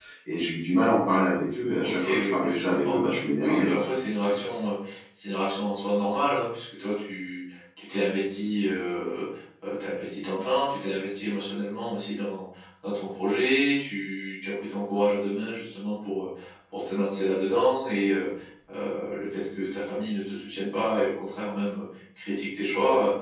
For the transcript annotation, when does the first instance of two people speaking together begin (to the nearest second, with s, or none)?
2 s